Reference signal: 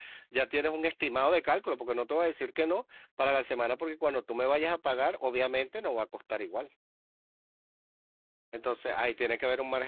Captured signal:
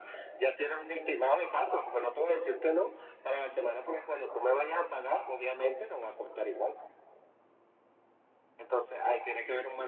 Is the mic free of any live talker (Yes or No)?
Yes